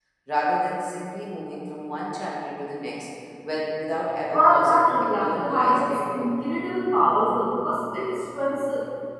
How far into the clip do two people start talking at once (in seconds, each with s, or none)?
4.3 s